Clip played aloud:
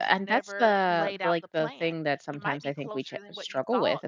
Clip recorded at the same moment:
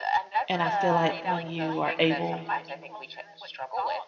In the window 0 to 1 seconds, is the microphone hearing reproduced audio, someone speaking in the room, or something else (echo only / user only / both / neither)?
both